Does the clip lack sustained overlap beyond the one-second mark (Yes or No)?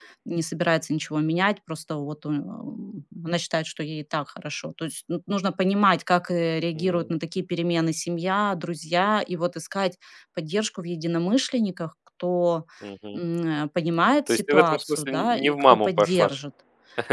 No